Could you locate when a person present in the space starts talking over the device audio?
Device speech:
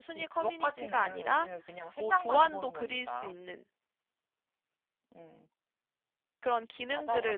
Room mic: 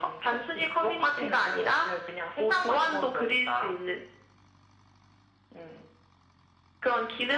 none

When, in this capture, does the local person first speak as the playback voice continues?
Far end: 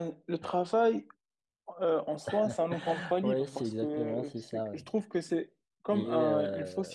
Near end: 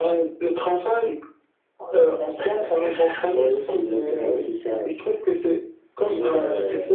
none

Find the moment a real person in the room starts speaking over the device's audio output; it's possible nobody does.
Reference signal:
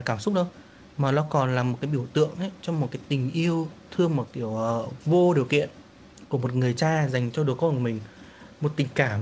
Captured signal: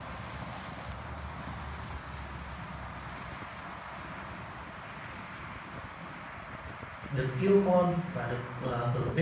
7.1 s

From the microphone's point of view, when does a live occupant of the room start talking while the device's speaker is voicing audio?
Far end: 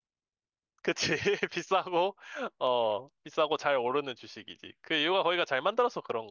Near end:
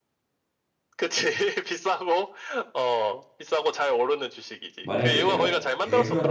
4.8 s

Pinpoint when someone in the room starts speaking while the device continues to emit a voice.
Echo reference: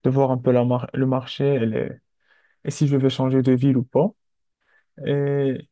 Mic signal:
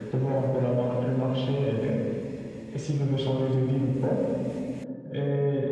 none

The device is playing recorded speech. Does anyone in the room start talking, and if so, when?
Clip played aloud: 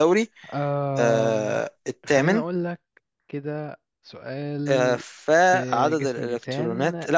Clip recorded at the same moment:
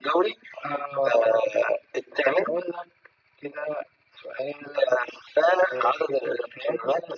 none

